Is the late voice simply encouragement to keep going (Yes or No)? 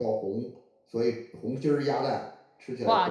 No